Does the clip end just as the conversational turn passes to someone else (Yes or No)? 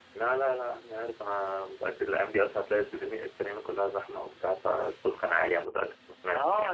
Yes